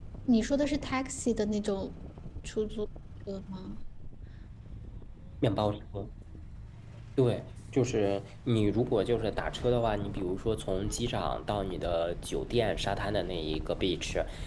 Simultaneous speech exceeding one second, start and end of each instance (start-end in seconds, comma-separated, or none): none